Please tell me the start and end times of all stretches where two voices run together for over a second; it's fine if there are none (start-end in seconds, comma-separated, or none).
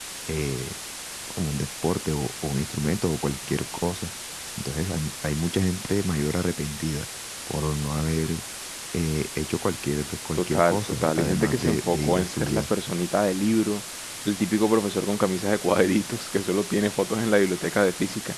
10.3-12.6